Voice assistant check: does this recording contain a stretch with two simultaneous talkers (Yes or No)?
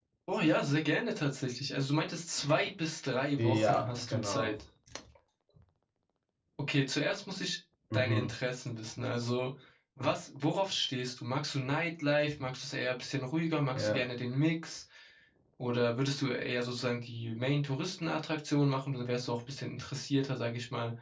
Yes